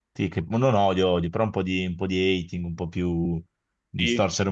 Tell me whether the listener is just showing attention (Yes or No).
No